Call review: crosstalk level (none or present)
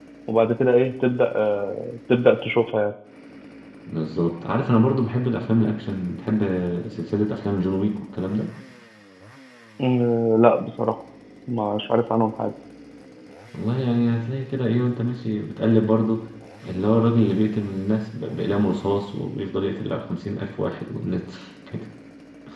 none